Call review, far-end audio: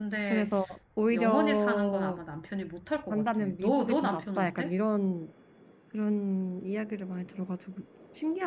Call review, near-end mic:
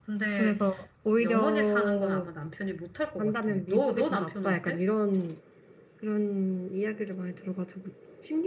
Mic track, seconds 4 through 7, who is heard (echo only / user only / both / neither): echo only